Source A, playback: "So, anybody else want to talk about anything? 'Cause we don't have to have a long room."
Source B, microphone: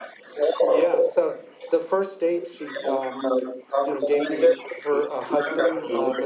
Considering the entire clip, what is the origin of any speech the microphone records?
both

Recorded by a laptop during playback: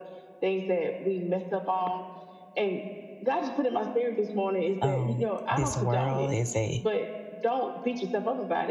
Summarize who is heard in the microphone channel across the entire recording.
both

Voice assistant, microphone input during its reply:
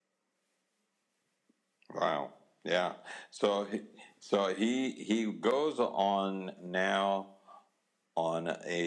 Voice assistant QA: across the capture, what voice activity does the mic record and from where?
echo only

